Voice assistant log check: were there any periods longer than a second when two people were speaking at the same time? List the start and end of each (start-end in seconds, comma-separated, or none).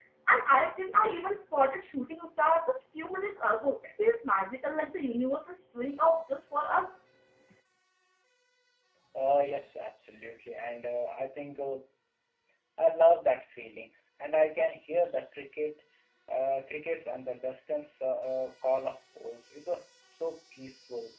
none